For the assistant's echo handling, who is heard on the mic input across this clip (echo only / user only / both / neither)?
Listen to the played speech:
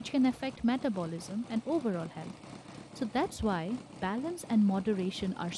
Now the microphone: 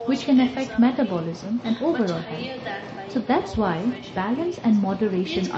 both